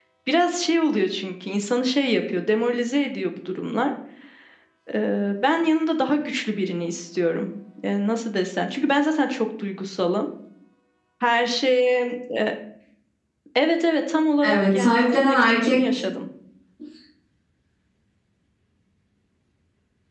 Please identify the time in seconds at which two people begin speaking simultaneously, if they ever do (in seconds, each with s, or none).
14.4 s